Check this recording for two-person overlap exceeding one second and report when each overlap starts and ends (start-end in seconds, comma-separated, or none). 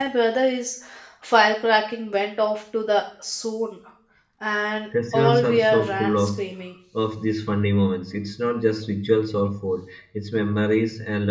5.1-6.4